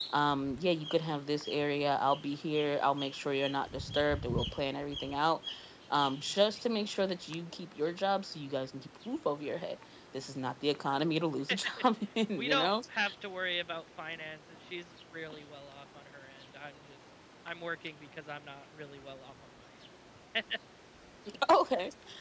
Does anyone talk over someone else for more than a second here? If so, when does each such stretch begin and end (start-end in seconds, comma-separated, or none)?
none